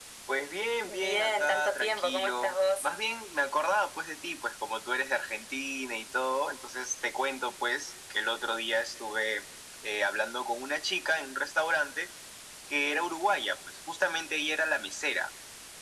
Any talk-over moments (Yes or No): Yes